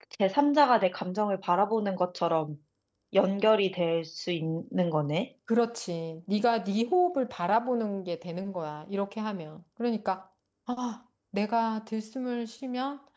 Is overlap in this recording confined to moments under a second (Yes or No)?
Yes